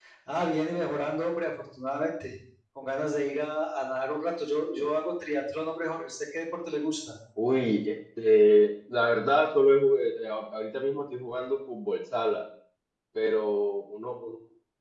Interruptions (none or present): none